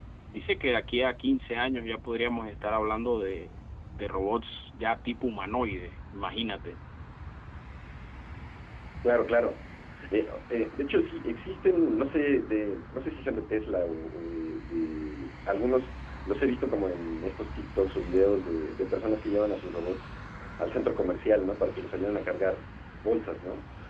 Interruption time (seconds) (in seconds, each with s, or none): none